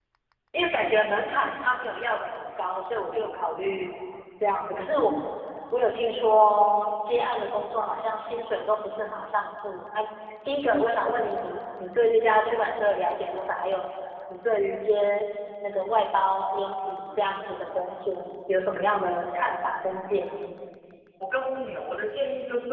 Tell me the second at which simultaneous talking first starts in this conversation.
none

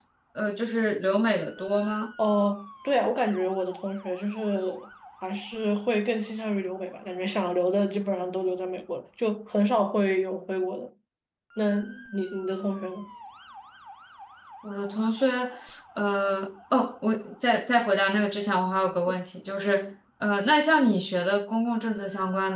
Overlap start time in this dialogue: none

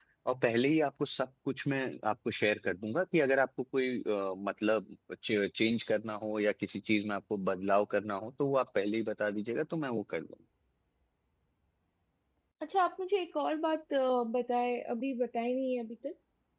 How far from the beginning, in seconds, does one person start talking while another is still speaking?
none

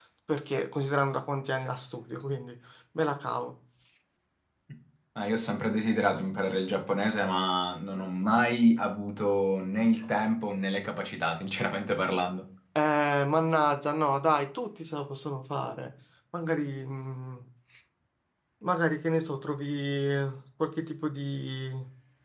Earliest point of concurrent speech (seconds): none

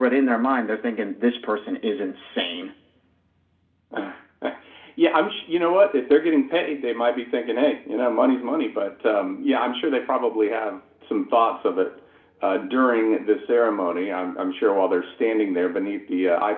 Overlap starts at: none

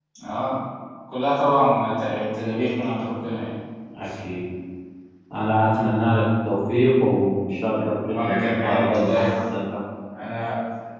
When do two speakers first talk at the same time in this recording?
8 s

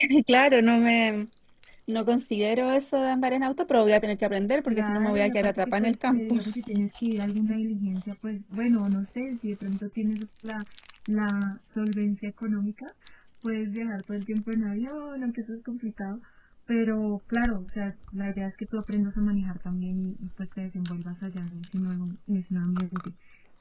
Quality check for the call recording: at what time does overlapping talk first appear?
5 s

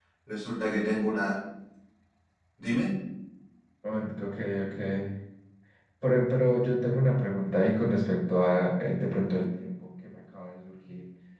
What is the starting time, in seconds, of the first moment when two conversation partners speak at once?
none

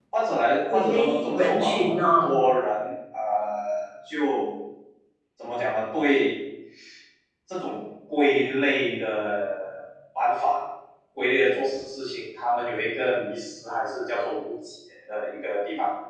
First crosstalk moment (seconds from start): 1 s

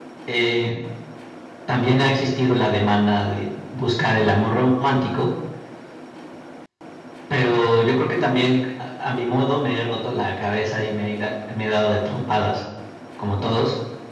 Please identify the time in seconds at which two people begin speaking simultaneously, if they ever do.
none

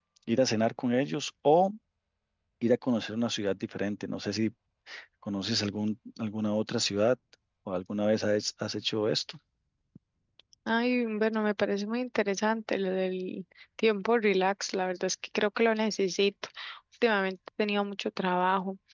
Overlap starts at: none

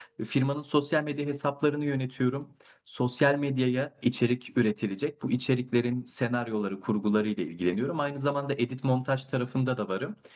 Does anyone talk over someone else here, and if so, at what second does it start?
none

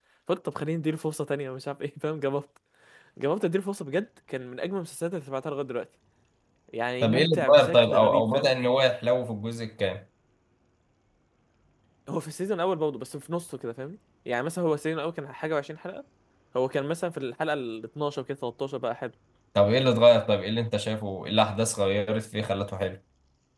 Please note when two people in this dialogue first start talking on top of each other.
7 s

